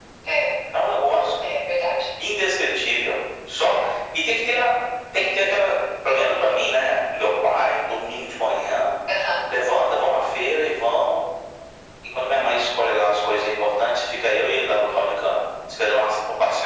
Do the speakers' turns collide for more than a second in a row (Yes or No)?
No